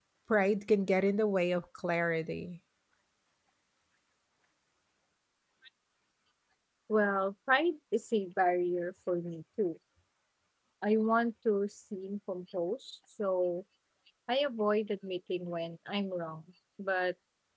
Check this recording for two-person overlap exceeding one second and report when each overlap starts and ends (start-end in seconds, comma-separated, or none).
none